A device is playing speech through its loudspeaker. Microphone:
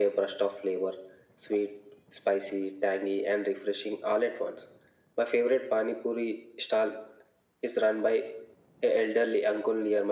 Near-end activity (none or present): none